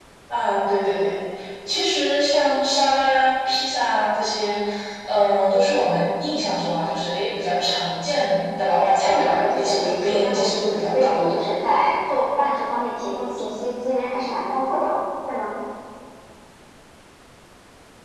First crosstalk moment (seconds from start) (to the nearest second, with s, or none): 9 s